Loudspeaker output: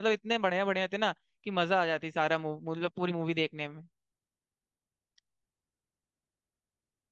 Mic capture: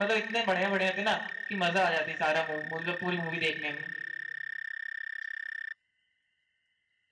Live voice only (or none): none